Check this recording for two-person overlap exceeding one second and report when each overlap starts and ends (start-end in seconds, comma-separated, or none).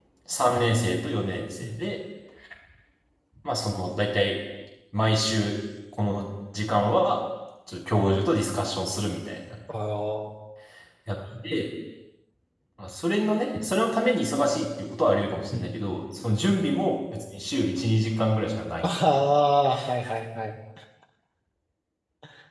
none